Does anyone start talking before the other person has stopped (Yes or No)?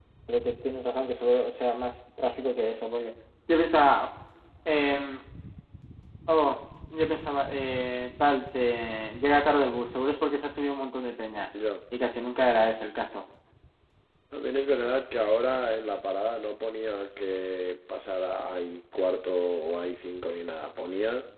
No